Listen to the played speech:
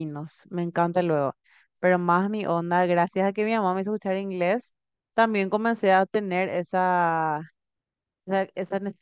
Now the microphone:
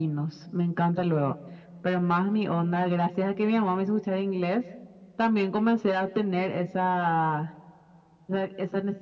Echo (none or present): present